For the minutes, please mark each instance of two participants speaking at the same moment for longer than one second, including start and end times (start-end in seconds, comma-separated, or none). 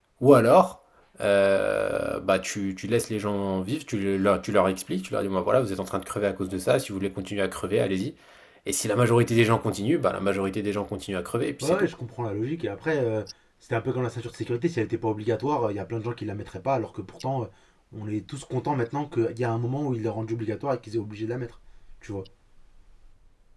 none